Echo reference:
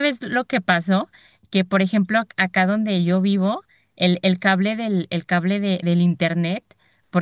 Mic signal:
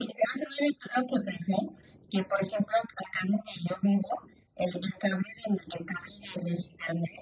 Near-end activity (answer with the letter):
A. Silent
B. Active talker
A